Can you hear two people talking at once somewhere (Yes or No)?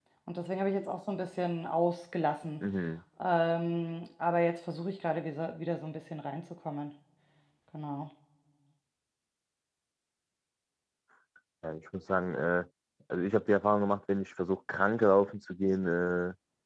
No